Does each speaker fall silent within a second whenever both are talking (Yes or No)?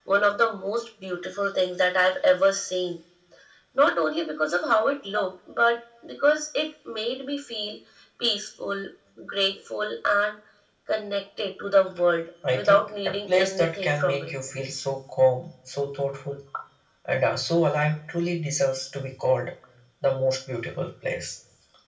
No